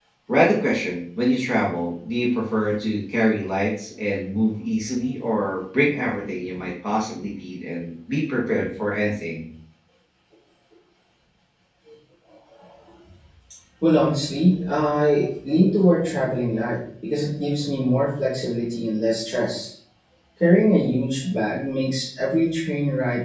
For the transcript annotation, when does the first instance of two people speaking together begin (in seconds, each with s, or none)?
none